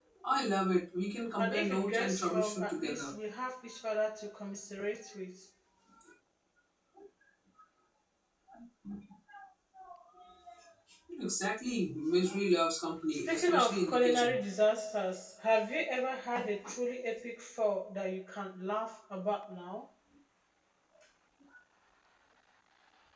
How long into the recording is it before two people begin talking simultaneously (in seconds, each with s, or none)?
1.4 s